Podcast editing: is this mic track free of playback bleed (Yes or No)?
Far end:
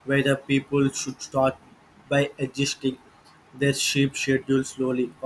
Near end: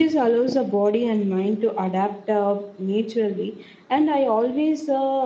Yes